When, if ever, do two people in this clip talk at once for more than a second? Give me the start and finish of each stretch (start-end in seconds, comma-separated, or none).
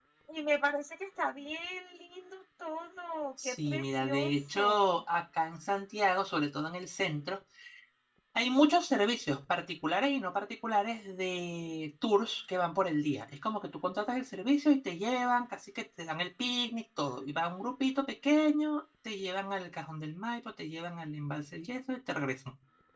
3.4-5.0